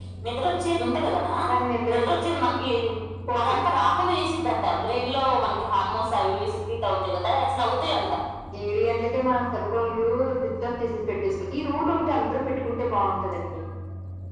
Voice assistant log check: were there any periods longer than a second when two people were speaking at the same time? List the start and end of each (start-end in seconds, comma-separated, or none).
none